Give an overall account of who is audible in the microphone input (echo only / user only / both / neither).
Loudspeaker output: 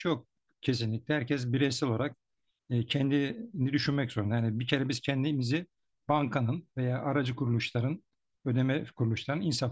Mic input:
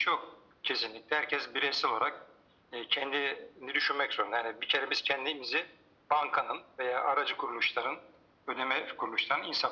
echo only